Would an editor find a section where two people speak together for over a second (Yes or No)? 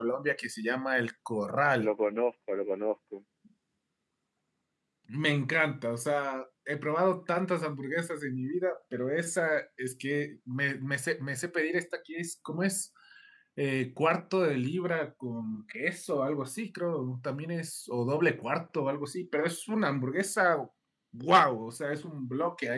No